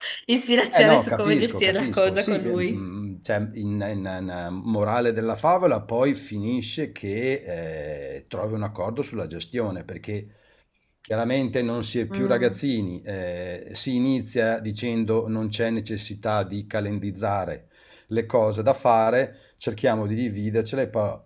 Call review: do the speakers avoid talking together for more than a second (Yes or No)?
No